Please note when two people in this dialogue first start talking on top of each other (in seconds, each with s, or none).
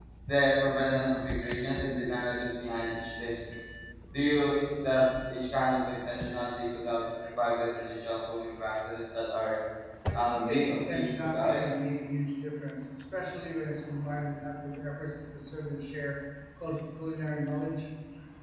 10.1 s